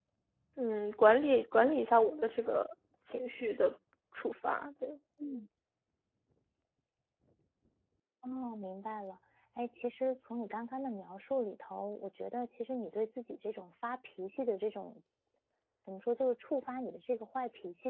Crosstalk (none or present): none